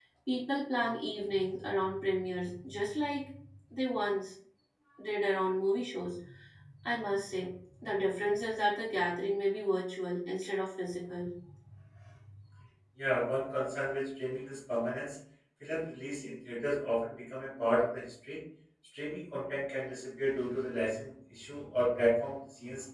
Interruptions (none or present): none